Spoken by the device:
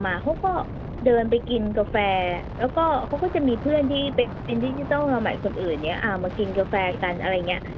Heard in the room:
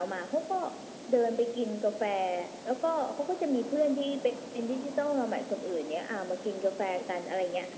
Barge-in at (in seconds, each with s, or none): none